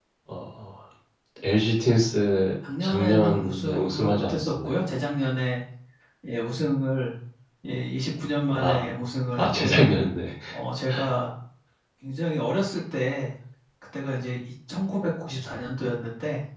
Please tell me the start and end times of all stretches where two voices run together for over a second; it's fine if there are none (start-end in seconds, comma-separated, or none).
2.8-4.7